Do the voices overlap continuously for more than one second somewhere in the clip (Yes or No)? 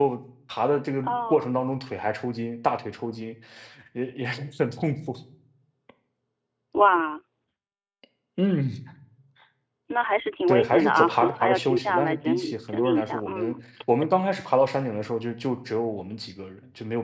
Yes